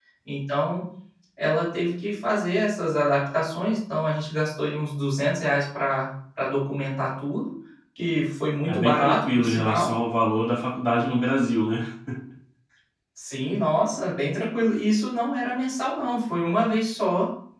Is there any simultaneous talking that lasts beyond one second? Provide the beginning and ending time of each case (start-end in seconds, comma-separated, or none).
8.7-9.9